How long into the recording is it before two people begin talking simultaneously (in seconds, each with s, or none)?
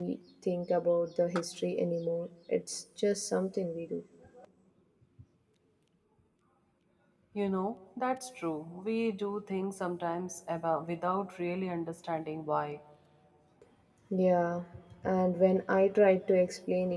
none